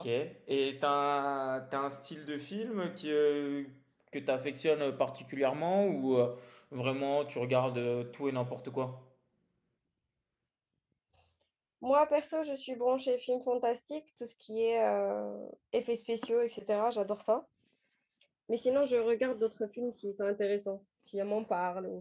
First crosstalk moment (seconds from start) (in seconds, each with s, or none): none